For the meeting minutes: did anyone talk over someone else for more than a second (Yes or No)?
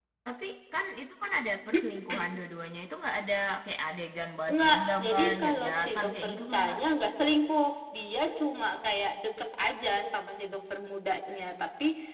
Yes